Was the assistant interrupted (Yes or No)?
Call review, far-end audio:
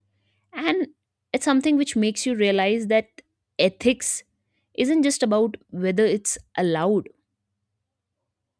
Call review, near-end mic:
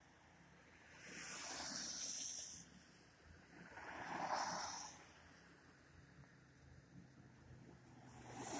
No